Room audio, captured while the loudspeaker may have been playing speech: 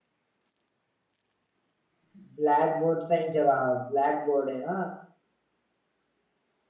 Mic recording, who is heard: user only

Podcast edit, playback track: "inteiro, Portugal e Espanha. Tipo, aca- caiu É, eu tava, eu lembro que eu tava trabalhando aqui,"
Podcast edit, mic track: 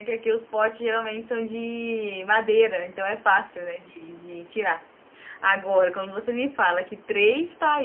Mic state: user only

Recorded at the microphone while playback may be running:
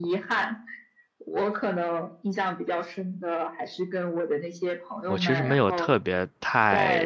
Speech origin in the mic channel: both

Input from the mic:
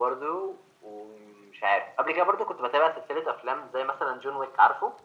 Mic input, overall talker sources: echo only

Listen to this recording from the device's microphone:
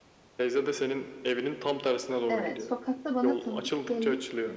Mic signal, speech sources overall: both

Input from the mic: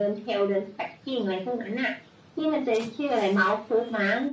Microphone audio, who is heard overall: echo only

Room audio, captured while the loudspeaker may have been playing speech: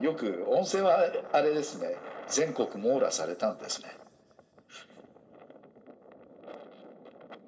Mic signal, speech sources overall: echo only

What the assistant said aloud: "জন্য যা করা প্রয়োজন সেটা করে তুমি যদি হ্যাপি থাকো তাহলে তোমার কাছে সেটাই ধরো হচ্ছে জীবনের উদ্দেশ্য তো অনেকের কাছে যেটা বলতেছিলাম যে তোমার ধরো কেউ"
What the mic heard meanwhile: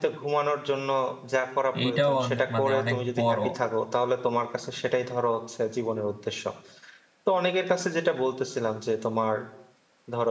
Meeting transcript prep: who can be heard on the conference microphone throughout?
both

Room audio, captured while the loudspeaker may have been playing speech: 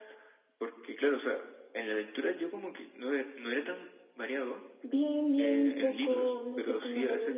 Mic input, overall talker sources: echo only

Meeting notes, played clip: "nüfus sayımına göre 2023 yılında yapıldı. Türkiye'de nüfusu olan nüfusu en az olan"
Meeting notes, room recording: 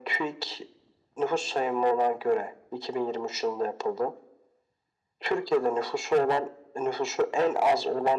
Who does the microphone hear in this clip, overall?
echo only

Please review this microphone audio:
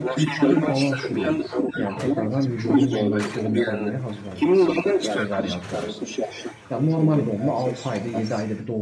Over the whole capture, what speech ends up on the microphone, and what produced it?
both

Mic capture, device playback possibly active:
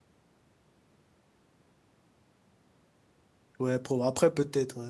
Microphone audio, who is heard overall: user only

